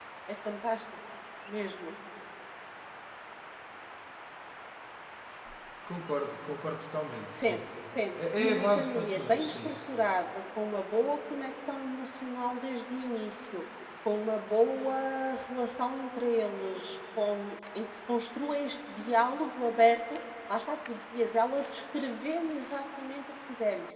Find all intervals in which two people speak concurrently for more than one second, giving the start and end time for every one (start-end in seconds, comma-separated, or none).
8.2-9.7